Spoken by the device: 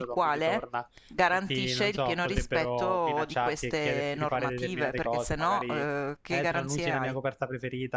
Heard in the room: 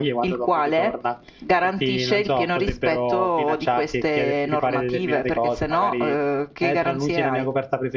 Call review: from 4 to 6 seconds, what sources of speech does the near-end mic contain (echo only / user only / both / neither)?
echo only